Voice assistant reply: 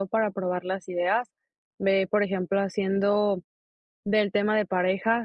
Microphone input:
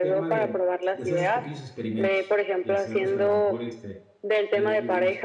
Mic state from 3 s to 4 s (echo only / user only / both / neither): both